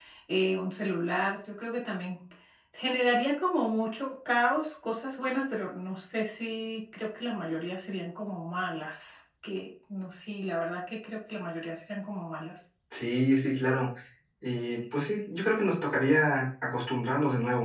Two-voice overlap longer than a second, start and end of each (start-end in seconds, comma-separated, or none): none